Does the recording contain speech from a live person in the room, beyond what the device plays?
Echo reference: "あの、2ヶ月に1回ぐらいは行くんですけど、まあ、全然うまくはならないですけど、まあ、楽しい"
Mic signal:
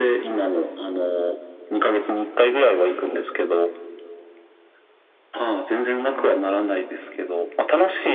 No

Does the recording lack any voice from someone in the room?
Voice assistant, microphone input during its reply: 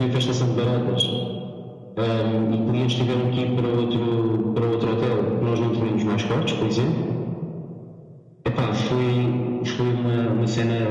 Yes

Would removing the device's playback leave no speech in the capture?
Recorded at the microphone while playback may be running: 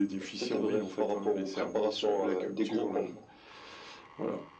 Yes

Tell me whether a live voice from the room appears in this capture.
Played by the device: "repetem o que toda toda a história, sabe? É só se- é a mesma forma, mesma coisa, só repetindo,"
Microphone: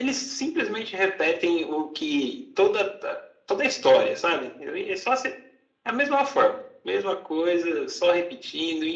No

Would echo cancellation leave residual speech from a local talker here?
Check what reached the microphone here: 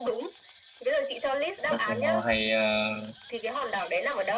Yes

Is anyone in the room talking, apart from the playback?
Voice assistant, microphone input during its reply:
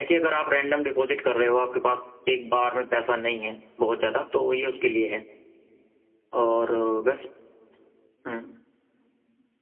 No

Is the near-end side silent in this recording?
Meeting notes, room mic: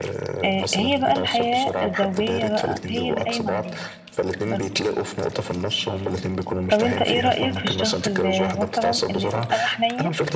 No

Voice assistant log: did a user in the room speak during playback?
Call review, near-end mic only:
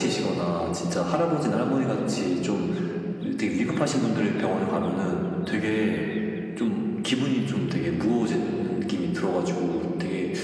No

